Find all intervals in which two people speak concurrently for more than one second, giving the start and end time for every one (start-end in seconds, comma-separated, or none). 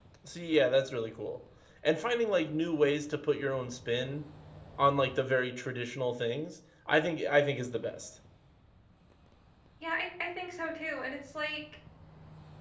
none